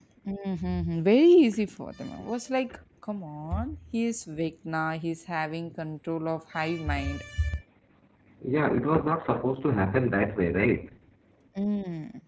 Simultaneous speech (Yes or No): No